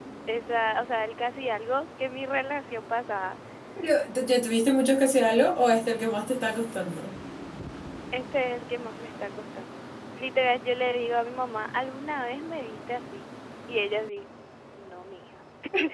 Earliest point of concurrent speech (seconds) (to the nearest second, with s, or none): none